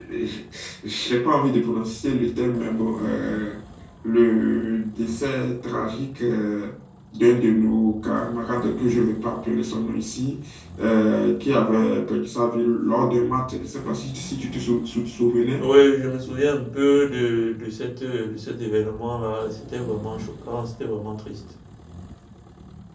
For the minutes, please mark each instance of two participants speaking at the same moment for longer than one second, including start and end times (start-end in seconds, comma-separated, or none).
none